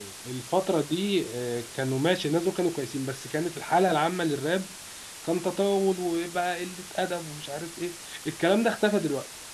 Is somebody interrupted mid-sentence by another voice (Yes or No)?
No